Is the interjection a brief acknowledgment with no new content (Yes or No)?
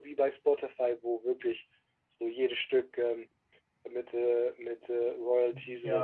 No